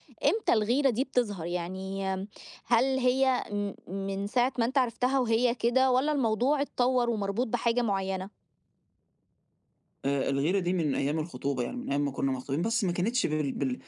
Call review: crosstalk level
none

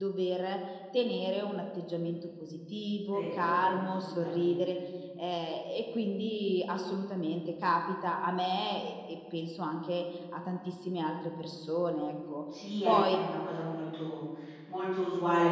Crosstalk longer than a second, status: present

